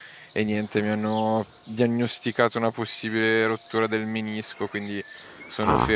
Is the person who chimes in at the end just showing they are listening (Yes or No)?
Yes